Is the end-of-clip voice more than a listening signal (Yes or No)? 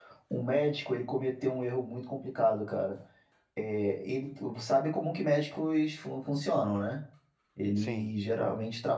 No